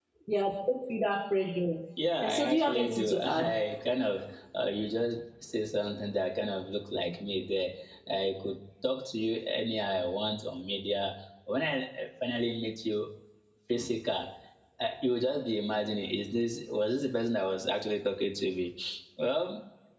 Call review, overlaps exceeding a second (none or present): present